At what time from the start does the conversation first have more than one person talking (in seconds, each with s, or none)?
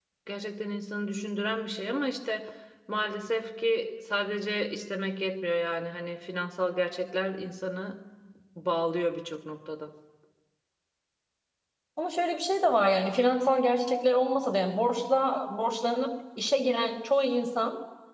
none